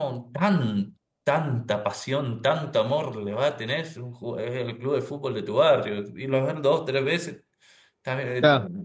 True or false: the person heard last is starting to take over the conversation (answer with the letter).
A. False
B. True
A